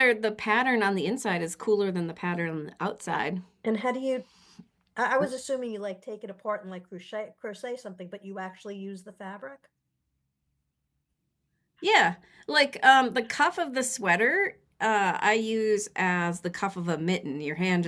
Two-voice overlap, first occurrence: none

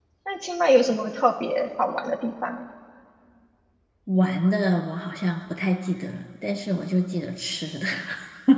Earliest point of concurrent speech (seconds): none

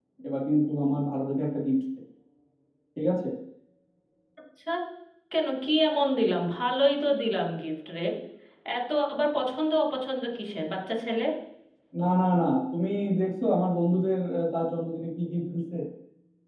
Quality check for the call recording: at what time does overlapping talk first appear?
none

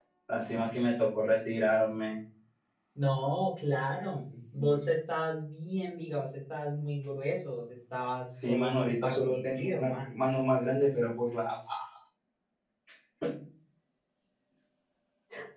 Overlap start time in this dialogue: 8 s

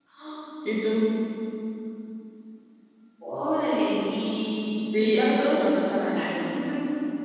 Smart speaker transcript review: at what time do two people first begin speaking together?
5 s

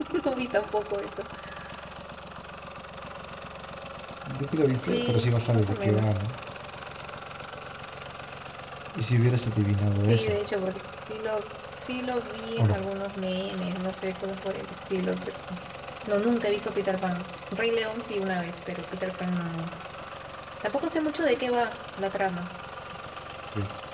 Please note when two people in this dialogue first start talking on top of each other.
5 s

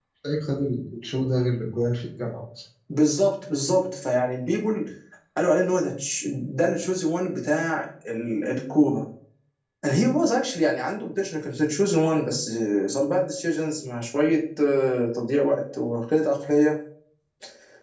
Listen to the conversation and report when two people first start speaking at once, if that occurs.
none

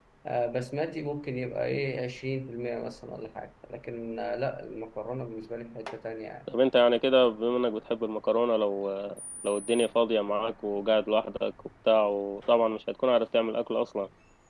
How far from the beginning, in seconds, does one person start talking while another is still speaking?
none

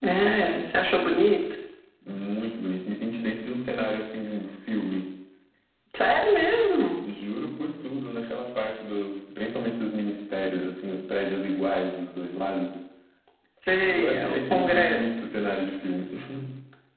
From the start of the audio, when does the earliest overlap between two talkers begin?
14 s

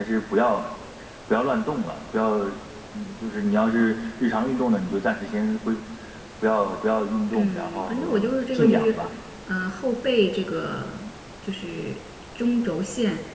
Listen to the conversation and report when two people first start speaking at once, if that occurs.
7 s

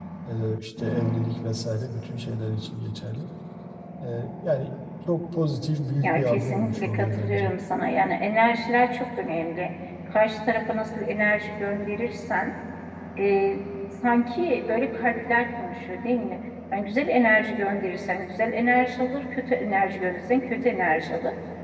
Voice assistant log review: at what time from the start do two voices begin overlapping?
6 s

